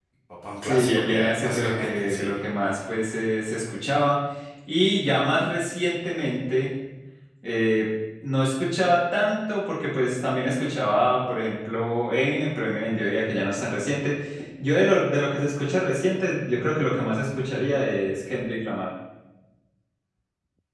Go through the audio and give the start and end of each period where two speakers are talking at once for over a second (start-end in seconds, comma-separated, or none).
0.6-2.4